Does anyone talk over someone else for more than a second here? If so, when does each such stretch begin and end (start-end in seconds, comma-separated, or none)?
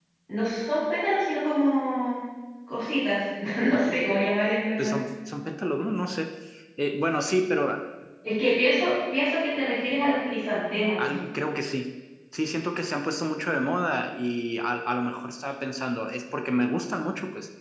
none